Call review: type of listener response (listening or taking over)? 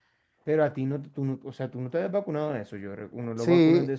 taking over